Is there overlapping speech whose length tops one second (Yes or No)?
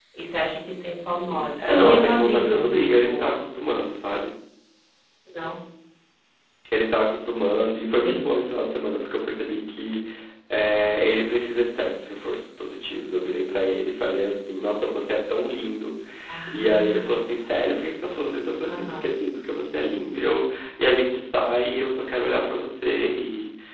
Yes